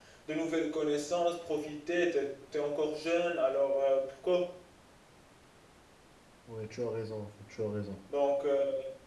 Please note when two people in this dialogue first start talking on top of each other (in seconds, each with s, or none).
none